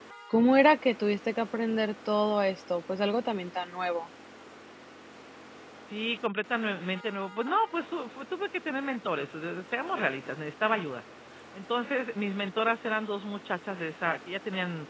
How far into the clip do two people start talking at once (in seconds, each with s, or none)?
none